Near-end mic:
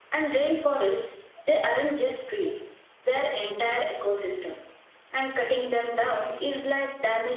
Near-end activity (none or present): none